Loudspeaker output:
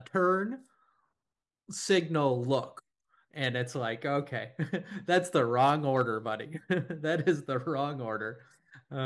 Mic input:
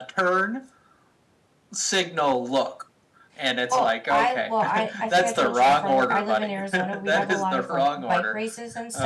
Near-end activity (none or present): present